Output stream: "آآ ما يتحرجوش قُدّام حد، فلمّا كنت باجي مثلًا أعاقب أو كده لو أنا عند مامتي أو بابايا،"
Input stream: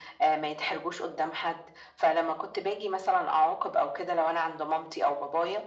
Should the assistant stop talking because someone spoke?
No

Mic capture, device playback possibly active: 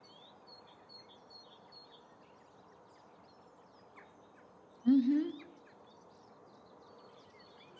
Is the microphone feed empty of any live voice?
No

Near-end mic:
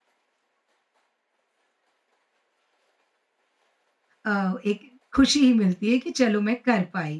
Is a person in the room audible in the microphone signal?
Yes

